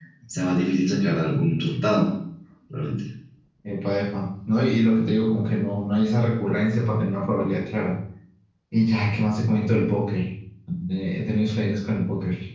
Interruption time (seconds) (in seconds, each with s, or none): none